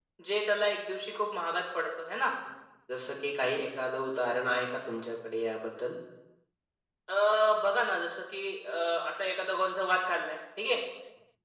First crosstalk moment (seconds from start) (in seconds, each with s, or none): none